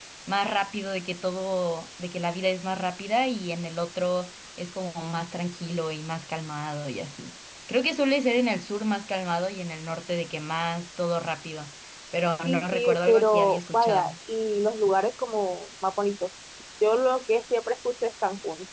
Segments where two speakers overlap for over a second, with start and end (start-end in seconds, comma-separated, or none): 12.4-14.1